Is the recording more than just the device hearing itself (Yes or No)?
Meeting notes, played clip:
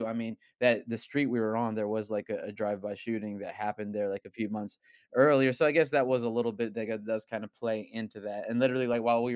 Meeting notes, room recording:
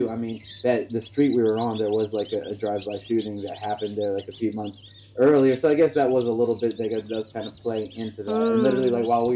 Yes